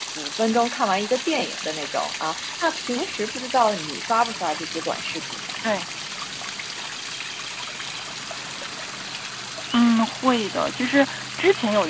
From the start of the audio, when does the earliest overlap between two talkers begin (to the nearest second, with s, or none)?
none